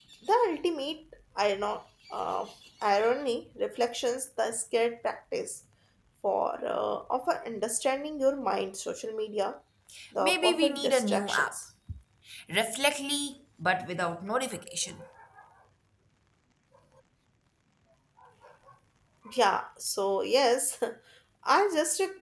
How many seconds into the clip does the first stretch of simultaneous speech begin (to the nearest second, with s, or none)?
10 s